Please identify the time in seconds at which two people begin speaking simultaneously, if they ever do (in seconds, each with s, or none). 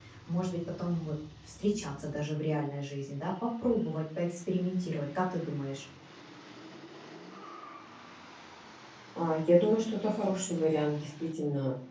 none